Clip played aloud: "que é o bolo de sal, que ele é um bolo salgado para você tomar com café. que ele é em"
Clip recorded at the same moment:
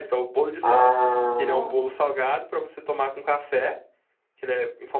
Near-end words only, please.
Ah,

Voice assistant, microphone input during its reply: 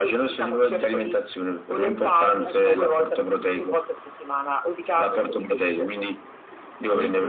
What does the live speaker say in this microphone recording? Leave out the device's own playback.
Eh certo.

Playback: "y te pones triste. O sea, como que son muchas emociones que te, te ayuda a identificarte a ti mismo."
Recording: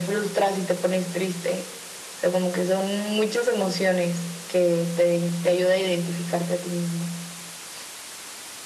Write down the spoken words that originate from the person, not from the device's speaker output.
none

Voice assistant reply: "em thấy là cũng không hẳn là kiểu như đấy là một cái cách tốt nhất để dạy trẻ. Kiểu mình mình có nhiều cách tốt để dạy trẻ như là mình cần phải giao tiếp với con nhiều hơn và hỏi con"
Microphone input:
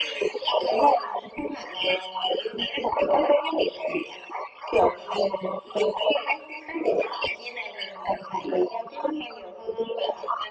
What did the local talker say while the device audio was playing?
none

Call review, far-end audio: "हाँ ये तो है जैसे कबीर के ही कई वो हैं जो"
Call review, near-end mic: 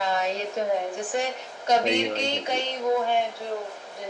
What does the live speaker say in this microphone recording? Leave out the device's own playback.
सही है भाई सही है

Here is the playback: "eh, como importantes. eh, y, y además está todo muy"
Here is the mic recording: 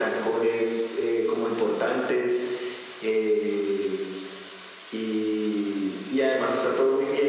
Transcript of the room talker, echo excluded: none

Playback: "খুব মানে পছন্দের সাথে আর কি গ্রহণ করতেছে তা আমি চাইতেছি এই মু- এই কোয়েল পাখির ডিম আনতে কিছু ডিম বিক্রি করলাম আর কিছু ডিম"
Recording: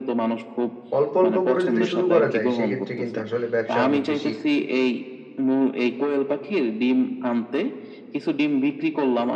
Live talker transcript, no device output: অল্প অল্প করে যদি শুরু করা যায় সেক্ষেত্রে কিন্তু আসলে ব্যবসা অনেক বেশি

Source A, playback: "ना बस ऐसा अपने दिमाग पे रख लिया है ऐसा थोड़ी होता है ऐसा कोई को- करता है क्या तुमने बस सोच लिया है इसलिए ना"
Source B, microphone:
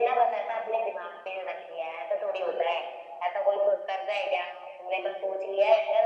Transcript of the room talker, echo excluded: none

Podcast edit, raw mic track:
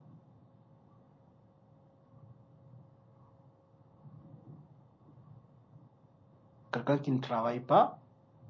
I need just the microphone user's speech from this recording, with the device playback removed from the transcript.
quelqu'un qui ne travaille pas,

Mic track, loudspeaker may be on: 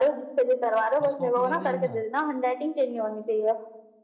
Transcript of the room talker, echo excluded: बस कॉपी करके लिखना

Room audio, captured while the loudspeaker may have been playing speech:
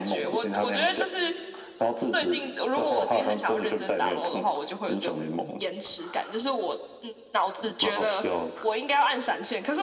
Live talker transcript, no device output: none

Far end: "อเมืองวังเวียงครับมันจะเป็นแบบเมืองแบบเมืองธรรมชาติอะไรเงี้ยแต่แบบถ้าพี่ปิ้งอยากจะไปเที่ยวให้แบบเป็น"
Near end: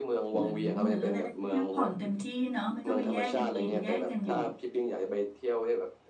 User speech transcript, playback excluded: เหมือนเหมือนเราได้พักผ่อนเต็มที่เนาะไม่ต้องไปแย่งกันกินแย่งกันอยู่

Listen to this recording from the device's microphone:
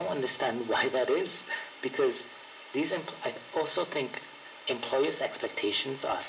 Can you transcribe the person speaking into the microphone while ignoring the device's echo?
none

